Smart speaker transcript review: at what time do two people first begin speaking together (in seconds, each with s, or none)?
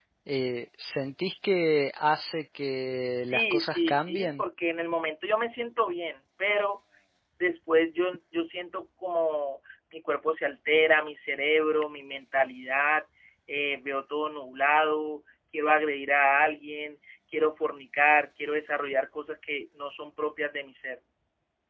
3.1 s